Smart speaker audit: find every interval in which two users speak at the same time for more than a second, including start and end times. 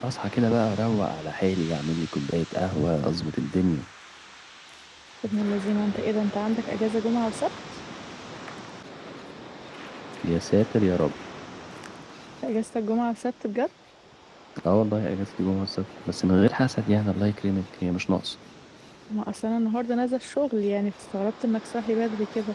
none

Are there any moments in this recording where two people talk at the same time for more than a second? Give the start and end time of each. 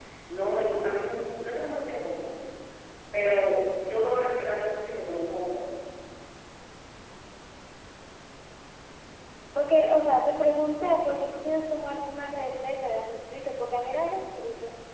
none

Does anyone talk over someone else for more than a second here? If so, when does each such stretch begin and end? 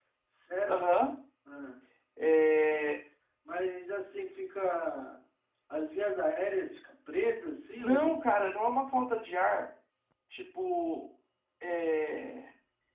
none

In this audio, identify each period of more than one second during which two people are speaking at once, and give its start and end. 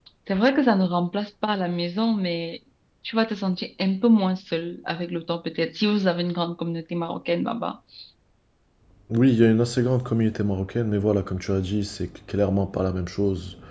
none

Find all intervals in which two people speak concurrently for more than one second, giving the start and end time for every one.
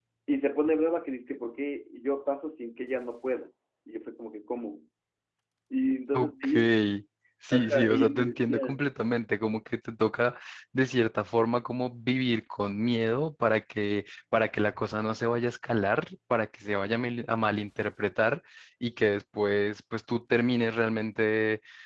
7.5-8.8

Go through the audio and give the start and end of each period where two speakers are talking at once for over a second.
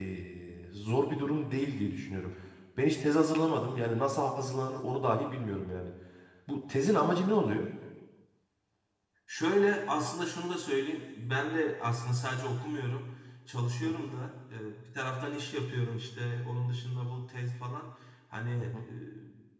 none

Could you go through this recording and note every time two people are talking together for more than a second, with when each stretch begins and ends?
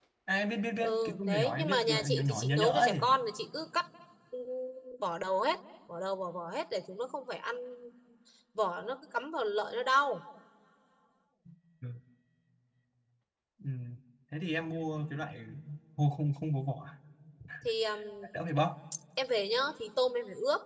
0.8-3.0

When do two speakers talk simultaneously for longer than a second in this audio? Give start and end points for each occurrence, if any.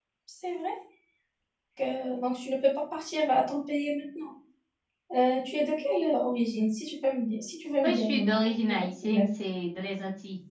7.8-9.2

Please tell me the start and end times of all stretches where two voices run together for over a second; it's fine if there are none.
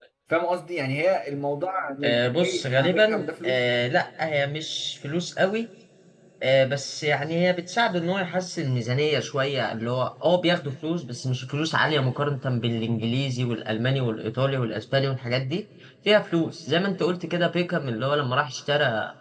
2.0-3.6

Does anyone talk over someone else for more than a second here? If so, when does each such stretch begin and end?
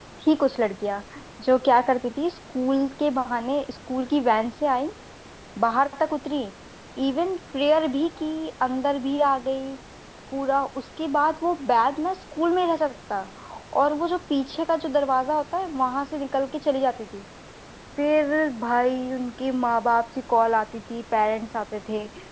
none

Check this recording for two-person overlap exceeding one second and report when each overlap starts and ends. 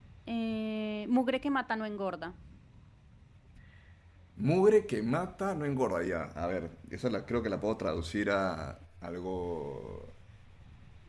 none

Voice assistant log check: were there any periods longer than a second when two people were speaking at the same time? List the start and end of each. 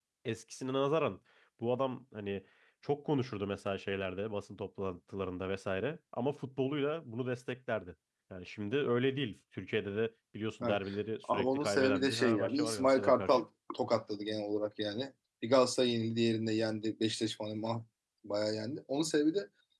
11.3-13.4

